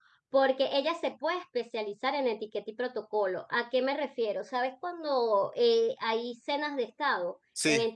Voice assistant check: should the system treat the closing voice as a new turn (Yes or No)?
No